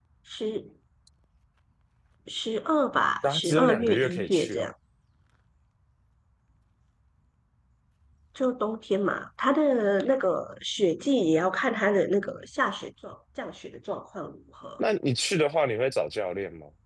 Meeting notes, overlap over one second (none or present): present